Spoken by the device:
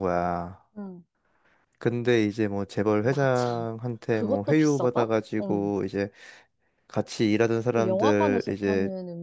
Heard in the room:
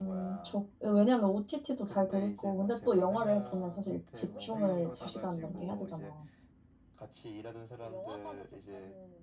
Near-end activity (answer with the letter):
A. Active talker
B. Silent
A